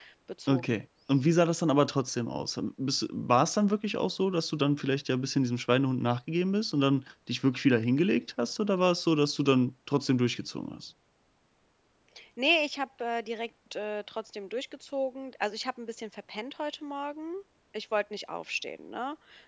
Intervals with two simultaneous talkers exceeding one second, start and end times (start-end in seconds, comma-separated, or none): none